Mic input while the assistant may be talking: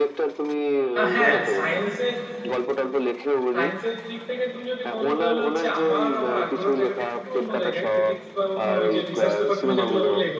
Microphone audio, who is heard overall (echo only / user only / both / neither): both